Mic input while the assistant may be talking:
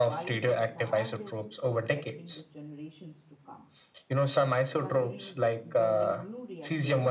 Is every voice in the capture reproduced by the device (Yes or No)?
No